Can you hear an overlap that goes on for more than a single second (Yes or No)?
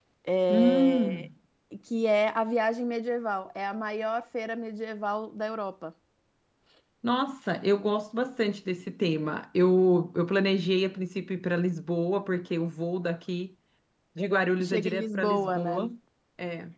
Yes